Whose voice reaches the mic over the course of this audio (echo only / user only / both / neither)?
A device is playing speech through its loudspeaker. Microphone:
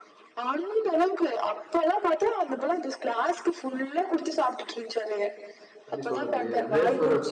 both